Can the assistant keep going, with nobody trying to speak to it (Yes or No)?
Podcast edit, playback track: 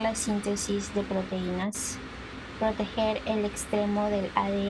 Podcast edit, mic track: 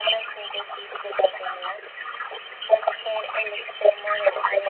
Yes